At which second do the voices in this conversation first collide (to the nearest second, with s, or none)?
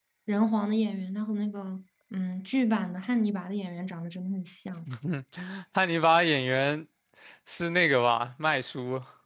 none